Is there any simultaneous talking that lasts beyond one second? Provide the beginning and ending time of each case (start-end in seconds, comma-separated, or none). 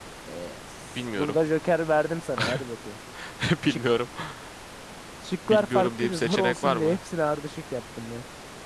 5.5-7.0